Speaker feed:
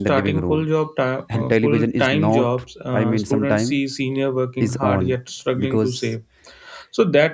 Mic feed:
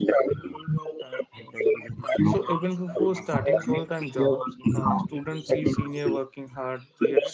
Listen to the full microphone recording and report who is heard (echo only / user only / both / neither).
both